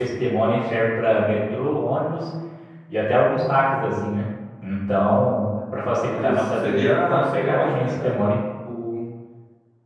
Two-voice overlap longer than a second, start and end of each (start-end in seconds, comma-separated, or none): 6.1-8.1